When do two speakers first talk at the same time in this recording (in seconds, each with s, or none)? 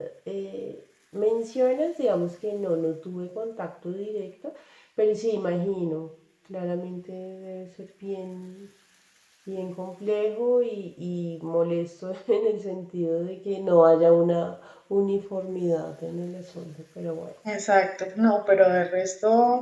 none